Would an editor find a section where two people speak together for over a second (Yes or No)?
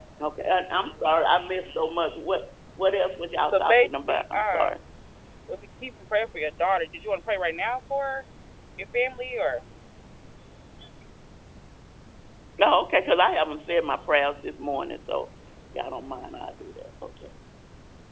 Yes